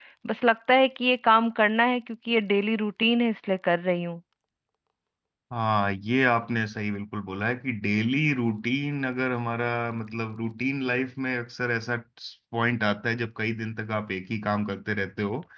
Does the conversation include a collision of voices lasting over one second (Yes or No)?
No